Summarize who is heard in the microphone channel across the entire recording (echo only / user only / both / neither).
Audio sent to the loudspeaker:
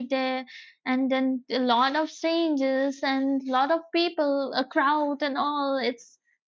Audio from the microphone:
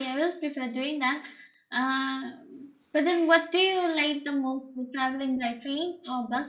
user only